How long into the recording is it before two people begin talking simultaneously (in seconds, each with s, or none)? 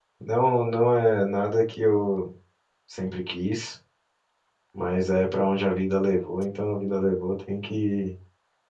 none